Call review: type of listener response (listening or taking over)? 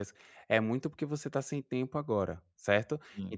listening